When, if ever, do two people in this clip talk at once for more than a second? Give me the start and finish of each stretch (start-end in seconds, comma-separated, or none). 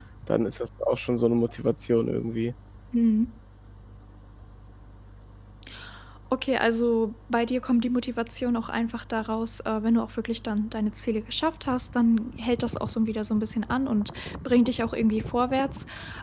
none